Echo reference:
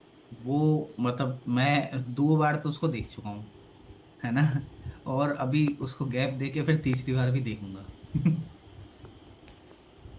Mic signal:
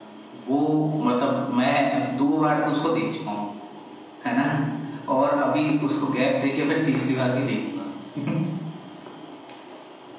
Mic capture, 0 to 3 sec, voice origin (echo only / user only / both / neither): echo only